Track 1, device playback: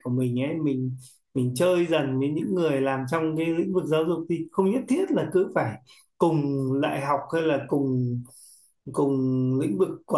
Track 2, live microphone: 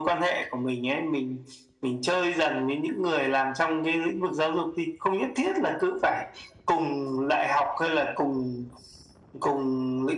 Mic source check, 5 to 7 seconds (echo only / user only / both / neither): echo only